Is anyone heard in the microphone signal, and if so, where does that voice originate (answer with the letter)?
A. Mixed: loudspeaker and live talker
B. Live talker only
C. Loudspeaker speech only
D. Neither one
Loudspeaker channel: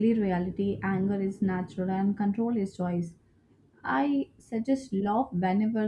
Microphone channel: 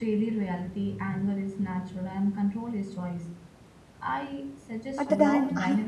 A